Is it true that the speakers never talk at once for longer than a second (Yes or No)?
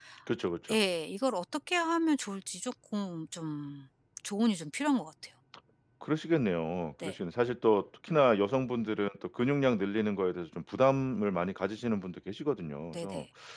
Yes